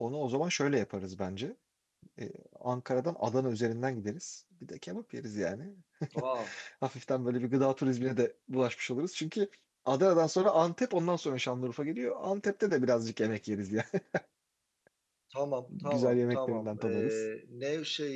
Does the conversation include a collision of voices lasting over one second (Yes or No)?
Yes